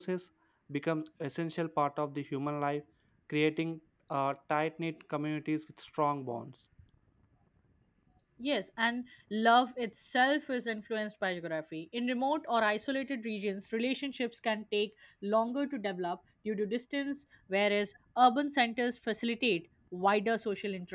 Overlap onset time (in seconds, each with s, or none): none